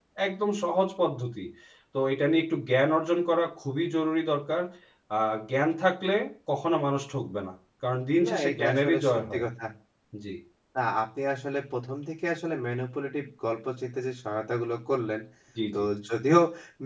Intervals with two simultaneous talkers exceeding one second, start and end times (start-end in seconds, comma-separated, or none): 8.2-9.4